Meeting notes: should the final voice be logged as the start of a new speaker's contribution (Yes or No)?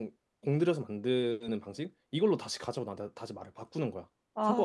Yes